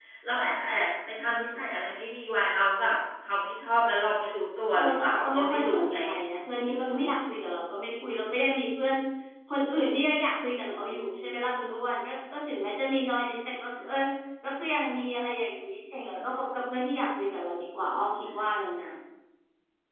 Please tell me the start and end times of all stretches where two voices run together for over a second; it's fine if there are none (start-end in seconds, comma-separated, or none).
4.7-6.0